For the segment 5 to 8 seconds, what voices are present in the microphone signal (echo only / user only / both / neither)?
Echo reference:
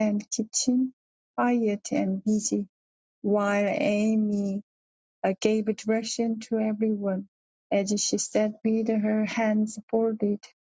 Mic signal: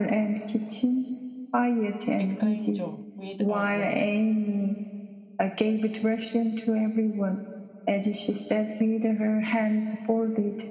echo only